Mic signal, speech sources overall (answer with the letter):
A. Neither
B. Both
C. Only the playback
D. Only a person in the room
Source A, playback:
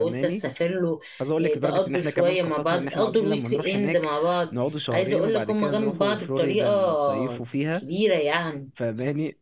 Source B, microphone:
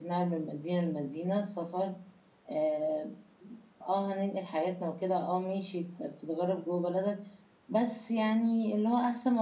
D